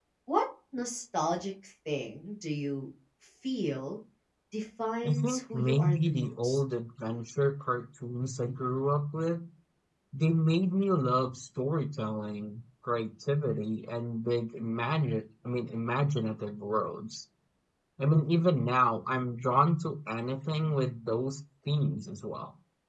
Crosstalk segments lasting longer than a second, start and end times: 5.0-6.6

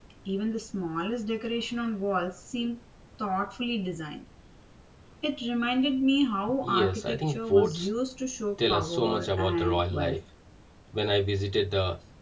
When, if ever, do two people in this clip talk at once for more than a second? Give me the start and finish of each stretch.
6.6-7.9, 8.7-10.2

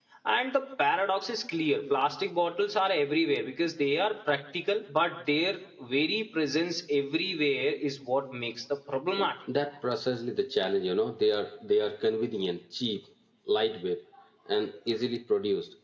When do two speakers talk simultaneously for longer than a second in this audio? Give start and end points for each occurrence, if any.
none

